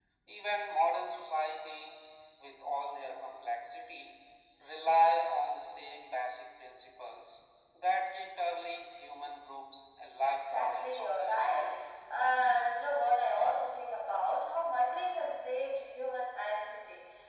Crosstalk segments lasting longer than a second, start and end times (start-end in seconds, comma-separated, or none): 10.4-11.8